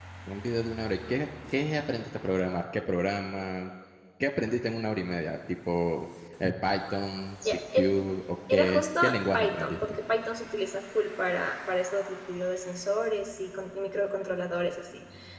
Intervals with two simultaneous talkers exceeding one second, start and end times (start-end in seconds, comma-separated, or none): 8.5-9.9